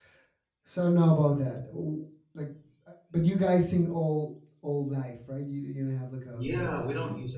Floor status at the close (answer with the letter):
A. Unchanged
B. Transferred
B